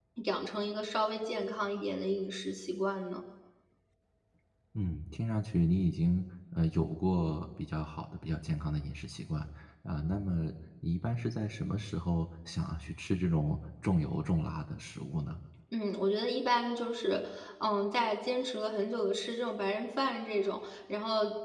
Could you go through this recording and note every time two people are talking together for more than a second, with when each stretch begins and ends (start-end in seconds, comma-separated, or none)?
none